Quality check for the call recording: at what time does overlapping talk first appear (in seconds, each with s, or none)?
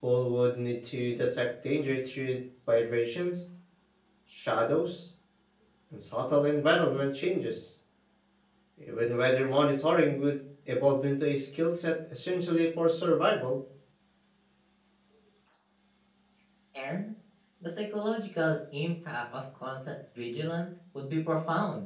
none